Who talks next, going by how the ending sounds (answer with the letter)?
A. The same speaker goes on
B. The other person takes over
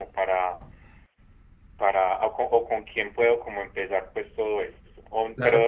A